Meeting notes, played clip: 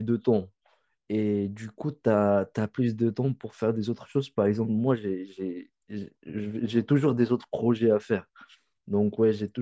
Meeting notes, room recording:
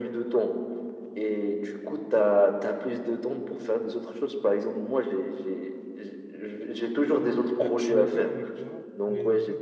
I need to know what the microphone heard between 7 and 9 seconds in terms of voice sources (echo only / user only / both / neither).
both